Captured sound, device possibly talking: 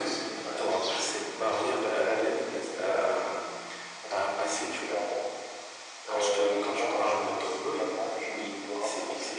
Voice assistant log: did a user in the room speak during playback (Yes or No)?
No